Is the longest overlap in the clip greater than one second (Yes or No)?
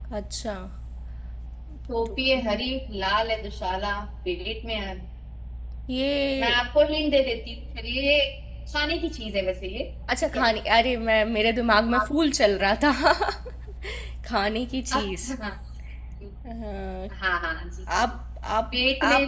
No